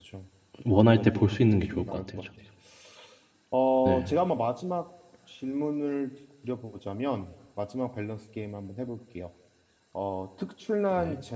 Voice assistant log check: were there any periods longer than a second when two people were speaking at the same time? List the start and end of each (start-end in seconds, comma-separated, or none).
0.7-2.3